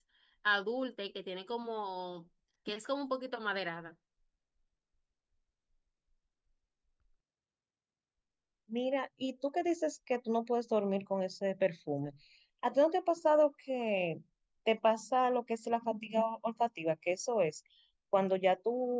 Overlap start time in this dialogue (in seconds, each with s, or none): none